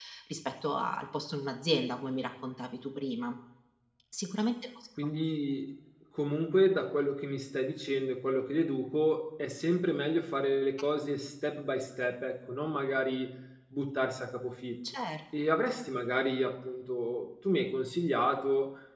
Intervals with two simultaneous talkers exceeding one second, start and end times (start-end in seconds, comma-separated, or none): none